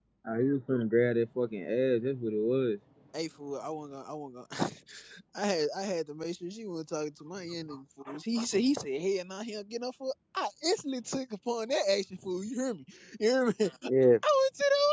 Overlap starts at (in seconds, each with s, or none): none